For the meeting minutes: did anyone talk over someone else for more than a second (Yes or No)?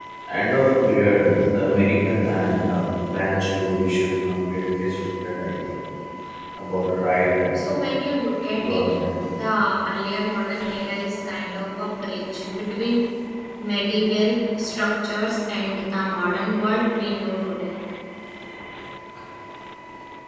No